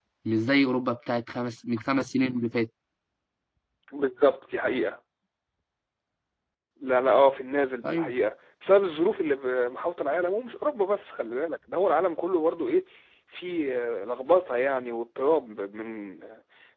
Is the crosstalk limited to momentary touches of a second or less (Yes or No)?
Yes